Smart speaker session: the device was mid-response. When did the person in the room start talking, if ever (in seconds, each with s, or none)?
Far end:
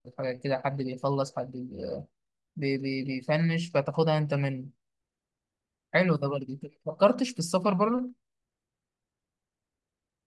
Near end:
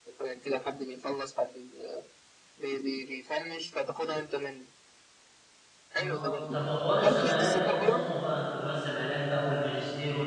6.0 s